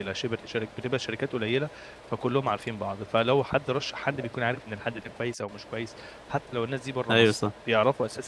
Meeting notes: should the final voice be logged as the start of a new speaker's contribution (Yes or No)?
No